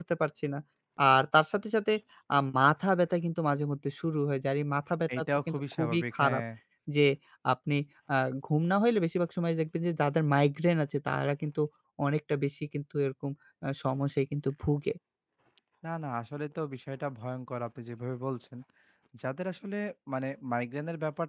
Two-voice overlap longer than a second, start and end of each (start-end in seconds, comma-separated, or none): 5.2-6.4